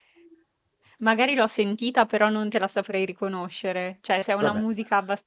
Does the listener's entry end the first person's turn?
No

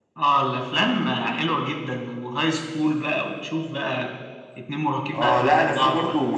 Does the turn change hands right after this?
Yes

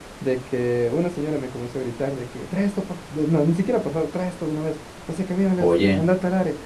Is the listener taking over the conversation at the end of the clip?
No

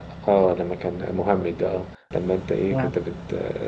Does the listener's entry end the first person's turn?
No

